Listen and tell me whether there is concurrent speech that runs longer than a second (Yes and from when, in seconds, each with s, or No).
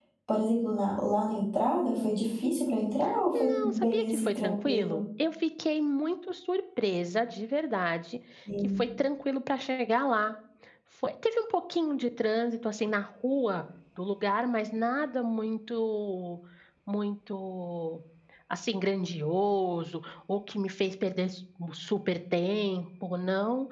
Yes, from 3.3 s